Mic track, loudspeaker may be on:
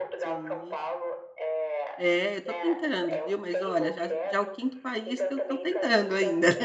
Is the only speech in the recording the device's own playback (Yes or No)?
No